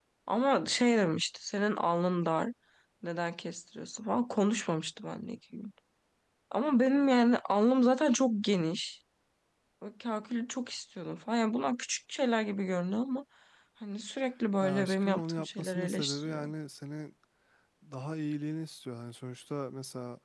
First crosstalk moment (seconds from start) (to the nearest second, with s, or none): 15 s